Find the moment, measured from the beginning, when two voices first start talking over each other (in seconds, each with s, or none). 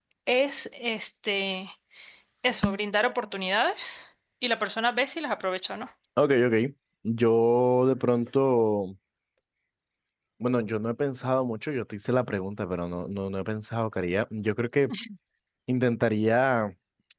none